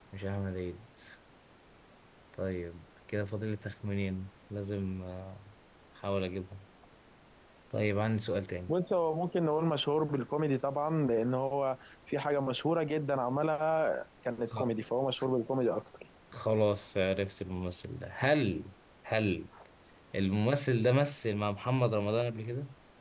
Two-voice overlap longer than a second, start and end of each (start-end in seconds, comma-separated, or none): none